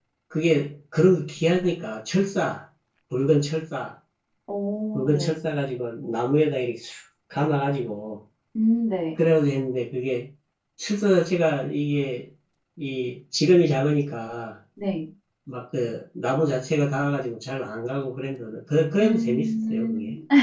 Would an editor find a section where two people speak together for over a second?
Yes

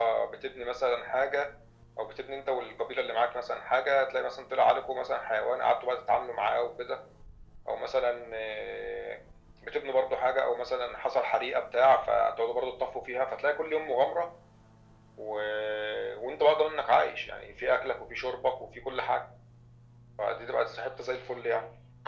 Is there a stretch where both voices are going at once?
No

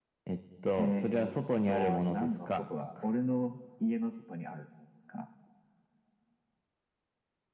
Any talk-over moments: Yes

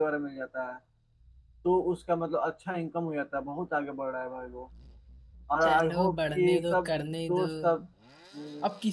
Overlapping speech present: Yes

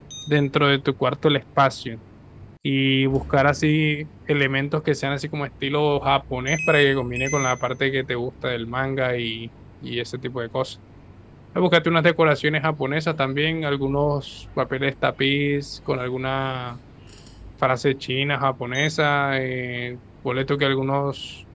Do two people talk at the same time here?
No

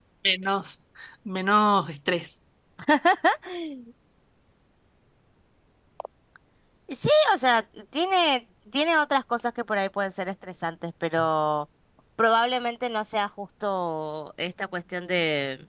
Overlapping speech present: No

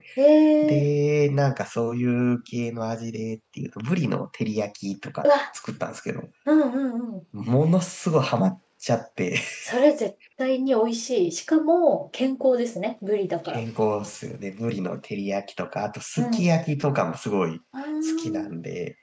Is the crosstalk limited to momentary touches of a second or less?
Yes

